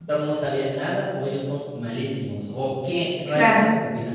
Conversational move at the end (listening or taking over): listening